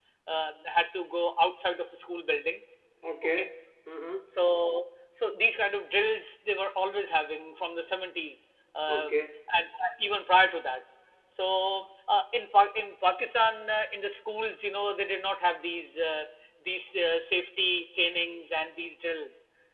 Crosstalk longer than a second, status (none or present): none